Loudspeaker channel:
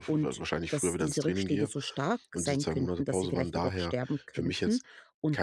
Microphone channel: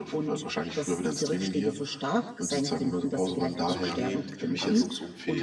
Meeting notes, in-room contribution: present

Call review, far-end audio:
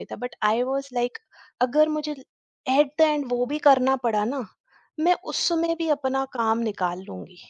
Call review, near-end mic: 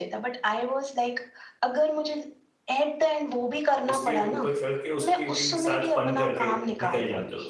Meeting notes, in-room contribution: present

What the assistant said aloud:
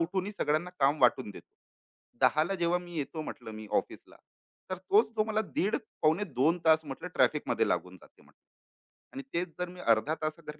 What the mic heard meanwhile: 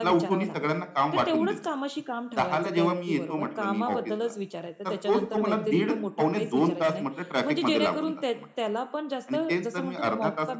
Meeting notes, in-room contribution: present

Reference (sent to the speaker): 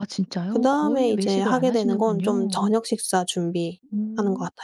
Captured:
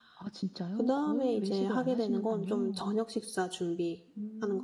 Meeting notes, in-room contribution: none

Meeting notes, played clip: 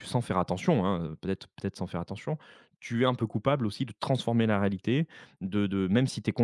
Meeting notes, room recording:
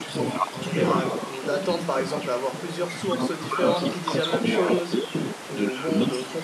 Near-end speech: present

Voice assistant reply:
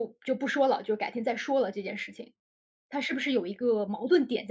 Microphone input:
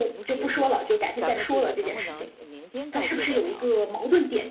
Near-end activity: present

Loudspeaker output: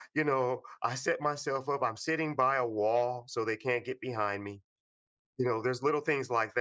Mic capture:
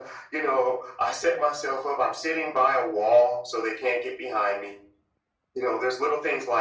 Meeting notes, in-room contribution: none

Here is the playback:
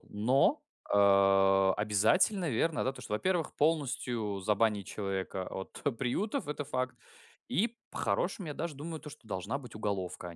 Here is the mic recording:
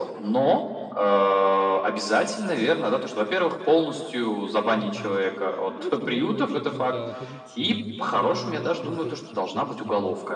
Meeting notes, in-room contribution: present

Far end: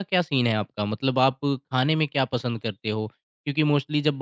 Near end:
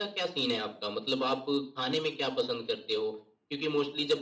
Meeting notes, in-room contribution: none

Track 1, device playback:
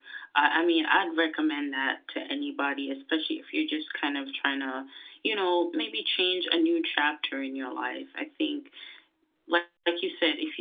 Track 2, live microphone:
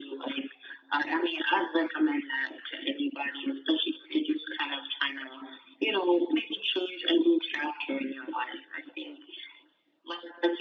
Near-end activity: none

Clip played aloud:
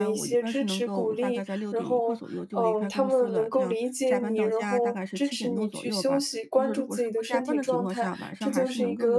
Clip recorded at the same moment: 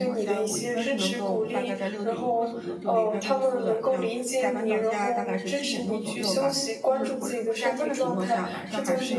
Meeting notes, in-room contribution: none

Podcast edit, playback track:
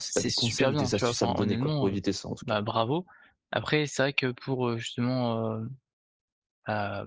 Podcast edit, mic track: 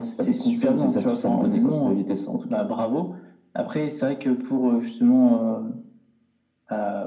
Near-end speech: none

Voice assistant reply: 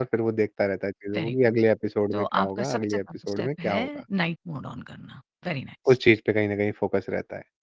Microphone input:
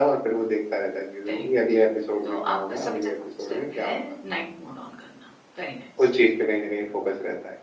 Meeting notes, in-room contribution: none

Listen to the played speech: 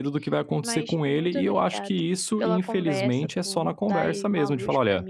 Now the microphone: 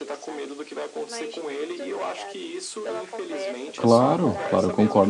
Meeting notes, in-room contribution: present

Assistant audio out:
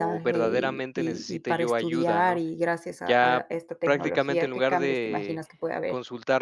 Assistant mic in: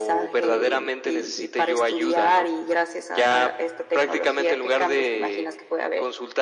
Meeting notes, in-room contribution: none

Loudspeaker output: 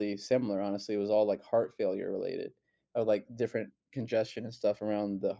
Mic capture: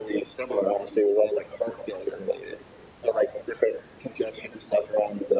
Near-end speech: none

